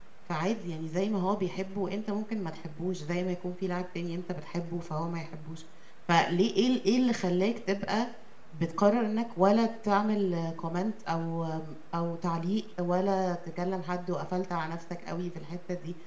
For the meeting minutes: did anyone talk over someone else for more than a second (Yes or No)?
No